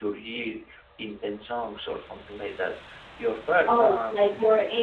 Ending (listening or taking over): taking over